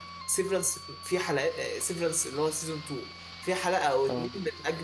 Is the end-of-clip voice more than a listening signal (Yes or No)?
No